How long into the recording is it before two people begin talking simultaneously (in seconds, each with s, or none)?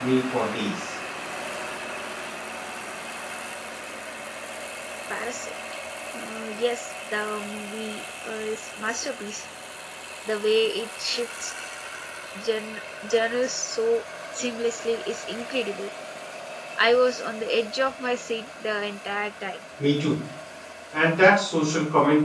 none